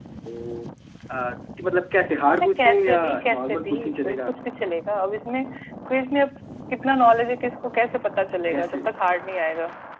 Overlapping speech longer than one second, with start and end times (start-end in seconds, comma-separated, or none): 2.4-4.3